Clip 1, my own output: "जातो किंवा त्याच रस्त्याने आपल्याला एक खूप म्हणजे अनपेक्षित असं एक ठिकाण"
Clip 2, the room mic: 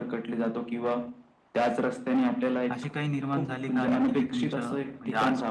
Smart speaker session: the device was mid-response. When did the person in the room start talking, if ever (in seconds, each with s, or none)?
2.7 s